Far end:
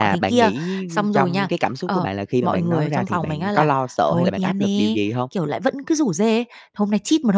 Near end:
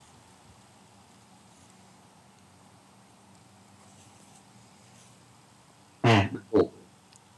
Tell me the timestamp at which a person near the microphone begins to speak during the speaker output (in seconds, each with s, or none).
6.0 s